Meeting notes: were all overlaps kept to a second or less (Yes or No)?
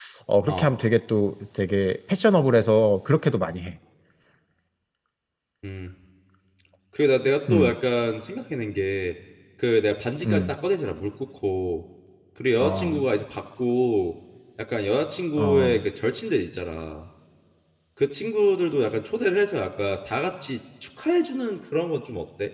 Yes